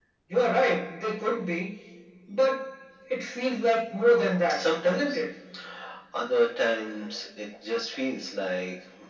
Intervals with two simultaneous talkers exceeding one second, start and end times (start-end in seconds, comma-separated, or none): 3.8-5.2